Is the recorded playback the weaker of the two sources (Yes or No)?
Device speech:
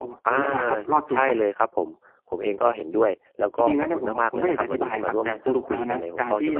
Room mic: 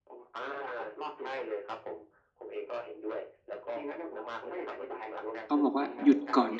Yes